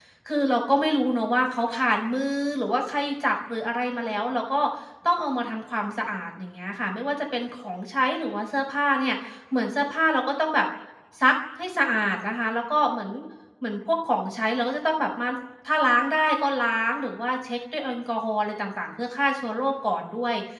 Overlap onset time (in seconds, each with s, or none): none